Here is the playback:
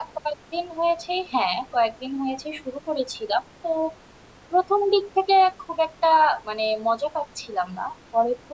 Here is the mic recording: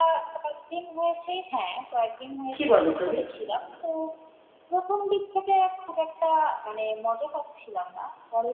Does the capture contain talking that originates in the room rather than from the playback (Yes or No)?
Yes